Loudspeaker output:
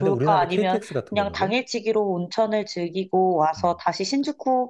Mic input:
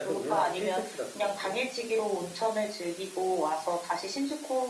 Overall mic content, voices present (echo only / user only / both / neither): echo only